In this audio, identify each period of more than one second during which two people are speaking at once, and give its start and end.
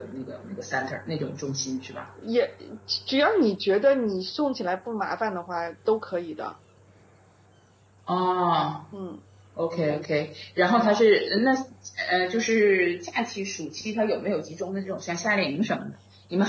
none

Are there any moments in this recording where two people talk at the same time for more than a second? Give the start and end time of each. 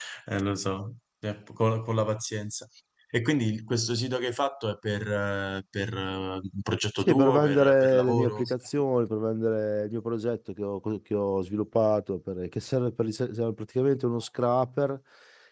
7.0-8.4

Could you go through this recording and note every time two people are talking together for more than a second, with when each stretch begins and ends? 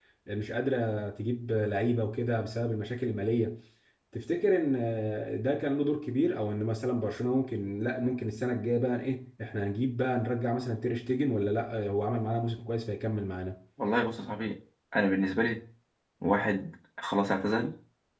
none

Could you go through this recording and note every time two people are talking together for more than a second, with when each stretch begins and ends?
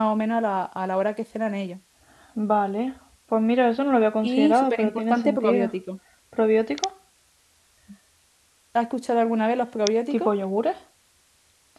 4.2-5.7

